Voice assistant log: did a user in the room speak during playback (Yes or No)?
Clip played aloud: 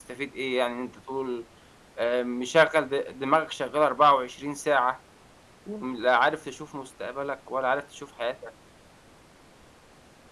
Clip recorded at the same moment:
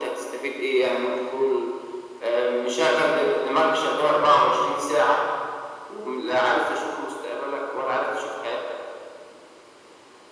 No